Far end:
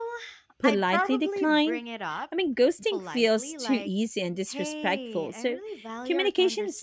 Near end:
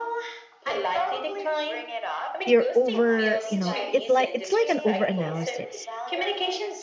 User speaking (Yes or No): Yes